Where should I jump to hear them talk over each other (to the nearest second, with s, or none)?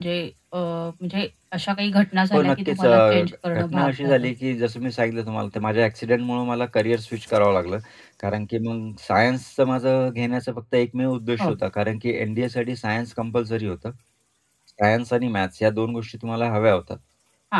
2 s